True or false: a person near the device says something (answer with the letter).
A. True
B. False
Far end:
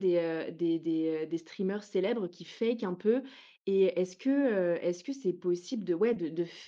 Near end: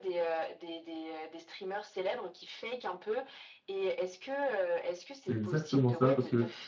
A